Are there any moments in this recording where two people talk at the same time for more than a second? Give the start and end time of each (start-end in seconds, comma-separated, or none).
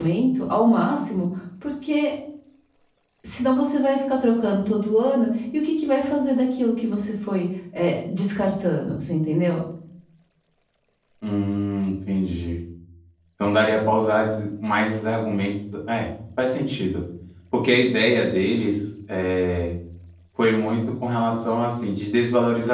none